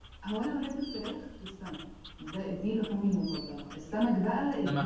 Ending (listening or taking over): listening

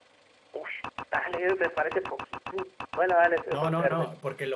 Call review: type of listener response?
taking over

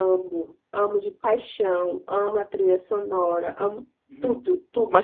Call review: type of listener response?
taking over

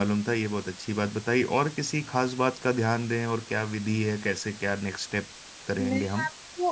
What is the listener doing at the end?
taking over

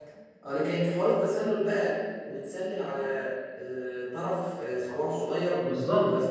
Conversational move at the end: taking over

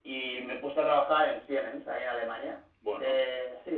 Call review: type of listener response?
listening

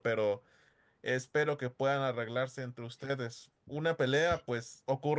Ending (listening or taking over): listening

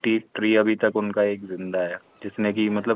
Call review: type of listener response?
listening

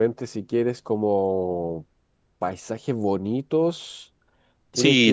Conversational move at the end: taking over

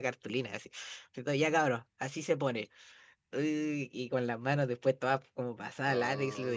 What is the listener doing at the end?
listening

